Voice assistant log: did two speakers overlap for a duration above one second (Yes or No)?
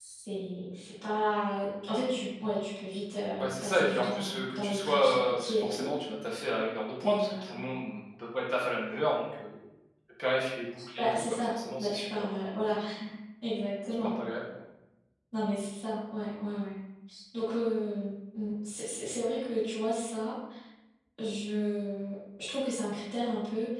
Yes